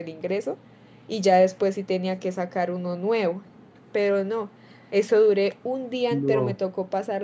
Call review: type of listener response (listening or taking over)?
listening